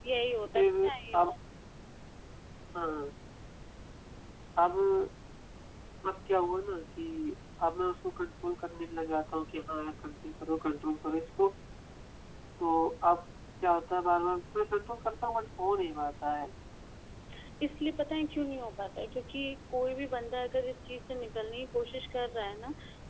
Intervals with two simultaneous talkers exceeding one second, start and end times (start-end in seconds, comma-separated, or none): none